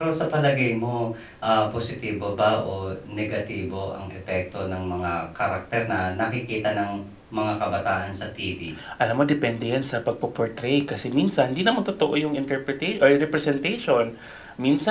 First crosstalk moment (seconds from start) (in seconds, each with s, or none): none